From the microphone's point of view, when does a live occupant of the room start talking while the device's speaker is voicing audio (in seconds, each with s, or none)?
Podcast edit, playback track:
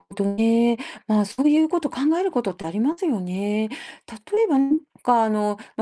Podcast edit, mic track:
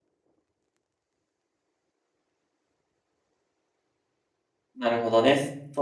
4.8 s